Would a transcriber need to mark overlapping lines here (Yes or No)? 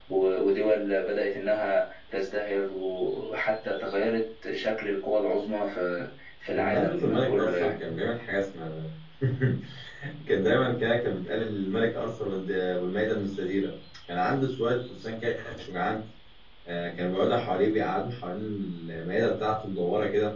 Yes